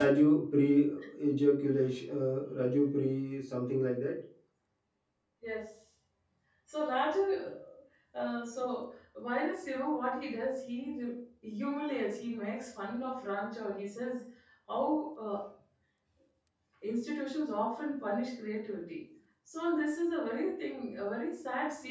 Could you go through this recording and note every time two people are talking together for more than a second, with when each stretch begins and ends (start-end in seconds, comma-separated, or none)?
none